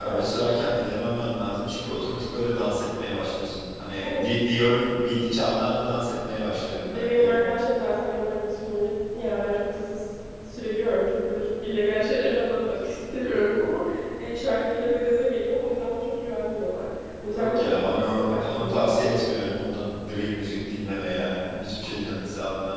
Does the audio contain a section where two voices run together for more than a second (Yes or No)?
Yes